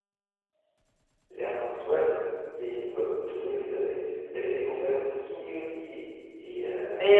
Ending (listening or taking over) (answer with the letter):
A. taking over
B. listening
A